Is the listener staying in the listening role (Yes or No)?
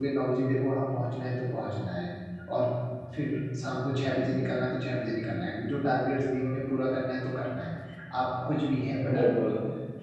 Yes